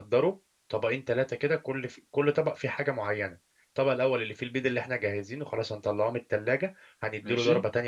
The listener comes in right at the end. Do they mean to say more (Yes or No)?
No